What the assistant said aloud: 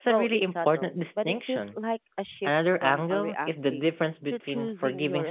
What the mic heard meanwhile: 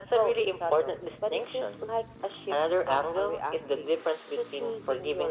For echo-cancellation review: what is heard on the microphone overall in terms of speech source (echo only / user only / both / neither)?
echo only